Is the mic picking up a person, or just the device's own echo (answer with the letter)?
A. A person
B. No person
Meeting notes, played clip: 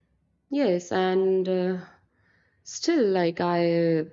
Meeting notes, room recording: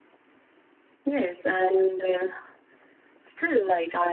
B